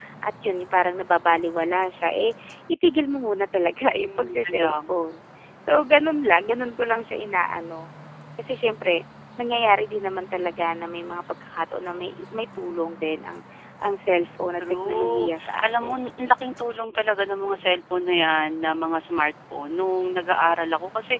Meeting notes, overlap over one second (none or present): present